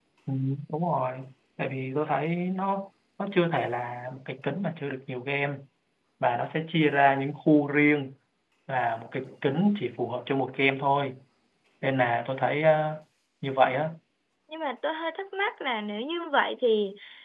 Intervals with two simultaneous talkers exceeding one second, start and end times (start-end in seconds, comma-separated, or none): none